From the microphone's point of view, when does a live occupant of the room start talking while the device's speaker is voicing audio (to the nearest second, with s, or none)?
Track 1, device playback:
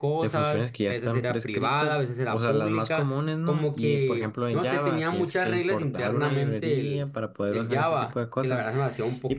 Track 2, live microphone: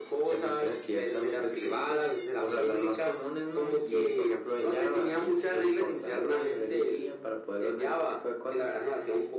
none